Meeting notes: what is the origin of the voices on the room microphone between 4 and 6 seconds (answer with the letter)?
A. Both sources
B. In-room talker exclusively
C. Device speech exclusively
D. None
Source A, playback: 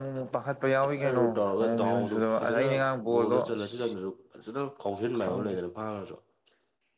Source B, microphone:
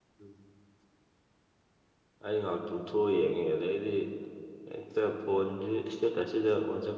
B